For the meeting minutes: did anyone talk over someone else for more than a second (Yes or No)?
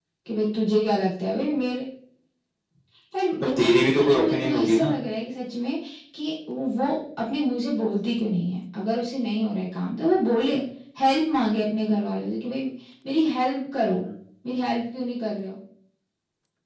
Yes